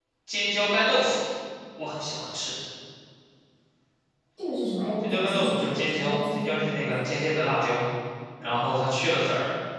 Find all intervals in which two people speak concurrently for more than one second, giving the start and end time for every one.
5.0-6.9

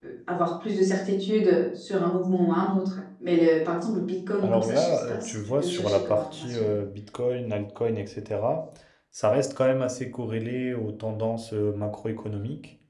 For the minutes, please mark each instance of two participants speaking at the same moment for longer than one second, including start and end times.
4.4-6.6

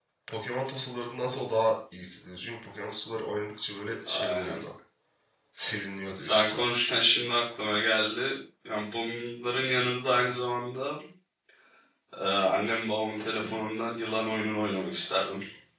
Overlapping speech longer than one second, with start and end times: none

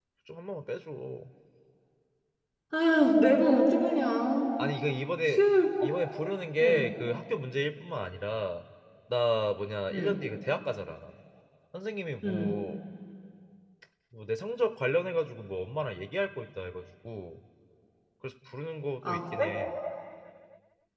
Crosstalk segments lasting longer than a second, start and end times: none

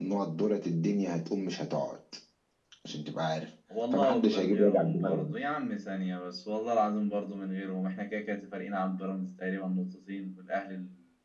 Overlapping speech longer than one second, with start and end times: 3.9-5.3

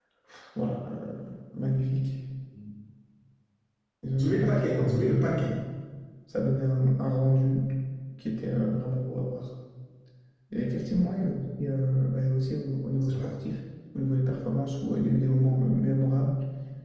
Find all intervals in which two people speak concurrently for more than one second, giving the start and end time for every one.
4.2-5.5

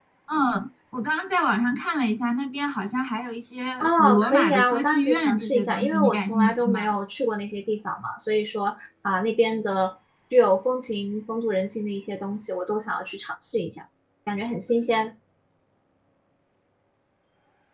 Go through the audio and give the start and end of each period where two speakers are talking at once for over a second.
3.8-7.0

